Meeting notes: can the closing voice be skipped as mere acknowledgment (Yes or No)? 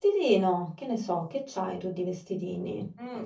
No